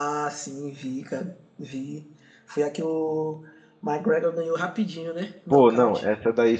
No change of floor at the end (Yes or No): No